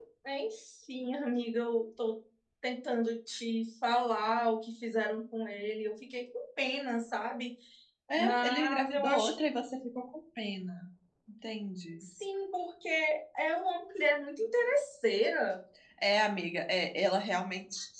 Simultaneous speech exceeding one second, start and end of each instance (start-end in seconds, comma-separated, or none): 8.2-9.6